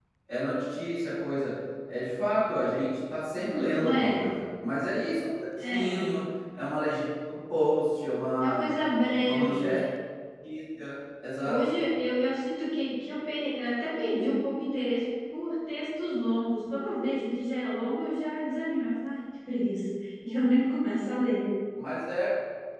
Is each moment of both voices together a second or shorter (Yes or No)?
Yes